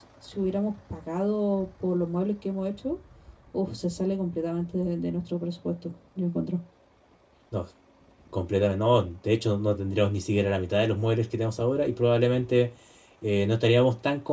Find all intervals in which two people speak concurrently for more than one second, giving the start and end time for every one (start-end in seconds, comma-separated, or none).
none